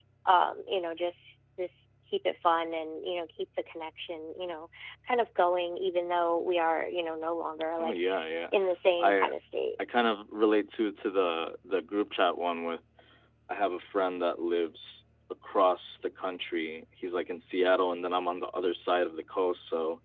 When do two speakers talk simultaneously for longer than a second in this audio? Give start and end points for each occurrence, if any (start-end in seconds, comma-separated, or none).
none